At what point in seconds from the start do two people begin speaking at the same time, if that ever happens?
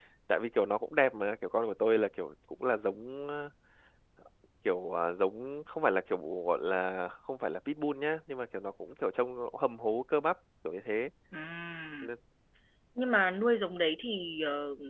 none

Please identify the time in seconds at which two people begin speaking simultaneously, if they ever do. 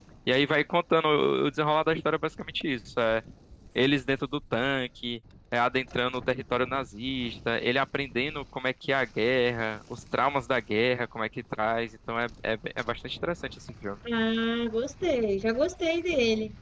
none

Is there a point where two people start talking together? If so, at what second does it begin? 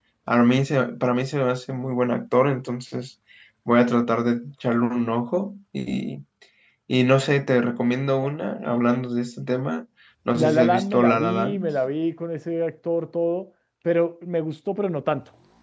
10.3 s

